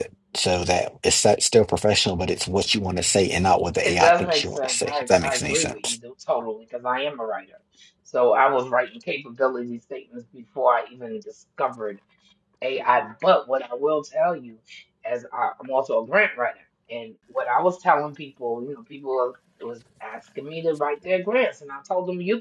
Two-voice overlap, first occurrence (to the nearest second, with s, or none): 4 s